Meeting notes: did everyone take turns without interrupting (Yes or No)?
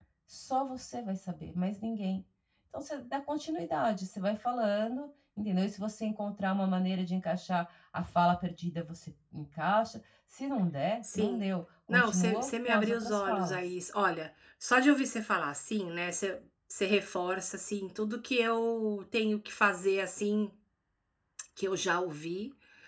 No